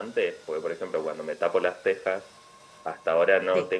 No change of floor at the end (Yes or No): Yes